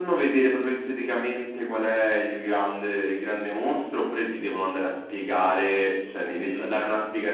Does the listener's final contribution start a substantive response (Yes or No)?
No